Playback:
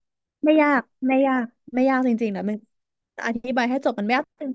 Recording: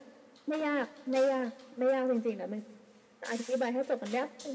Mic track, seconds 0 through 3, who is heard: echo only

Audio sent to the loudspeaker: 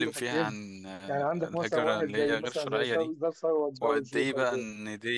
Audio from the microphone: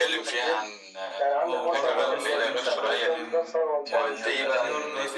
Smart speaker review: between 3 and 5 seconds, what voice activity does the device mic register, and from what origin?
both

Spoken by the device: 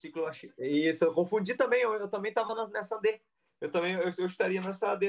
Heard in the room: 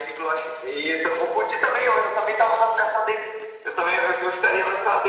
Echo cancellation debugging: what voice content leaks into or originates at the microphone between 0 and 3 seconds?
echo only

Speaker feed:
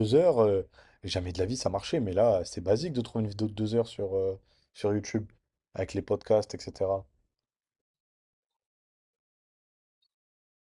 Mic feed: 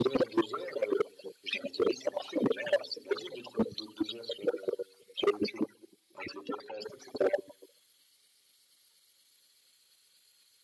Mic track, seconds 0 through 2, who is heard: echo only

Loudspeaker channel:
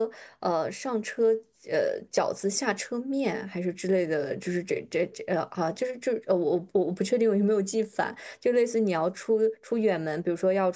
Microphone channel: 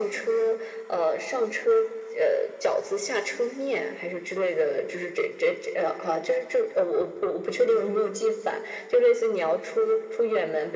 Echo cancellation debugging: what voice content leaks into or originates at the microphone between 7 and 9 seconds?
echo only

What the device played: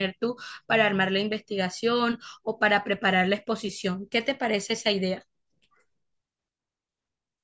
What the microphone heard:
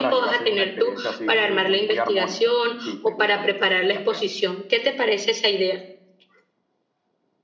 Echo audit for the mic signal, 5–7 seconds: echo only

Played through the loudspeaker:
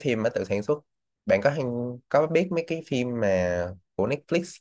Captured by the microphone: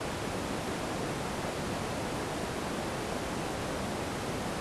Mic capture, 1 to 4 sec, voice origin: neither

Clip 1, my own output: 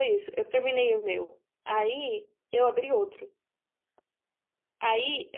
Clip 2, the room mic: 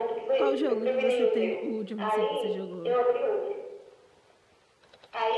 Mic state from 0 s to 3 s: both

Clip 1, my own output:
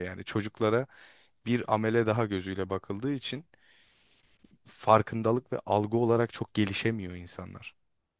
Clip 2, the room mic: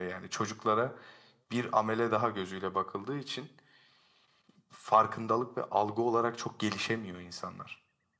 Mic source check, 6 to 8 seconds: echo only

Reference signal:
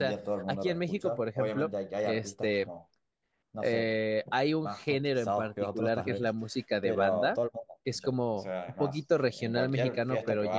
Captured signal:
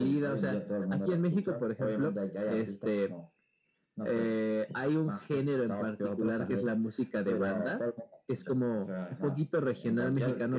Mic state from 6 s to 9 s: echo only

